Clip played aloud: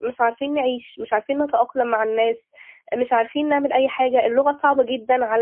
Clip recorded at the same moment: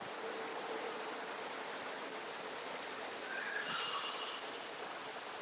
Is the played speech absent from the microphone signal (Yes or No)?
Yes